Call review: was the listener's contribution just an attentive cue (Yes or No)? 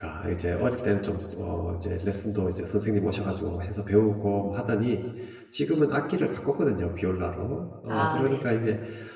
Yes